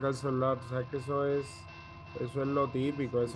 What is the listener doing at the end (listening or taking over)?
taking over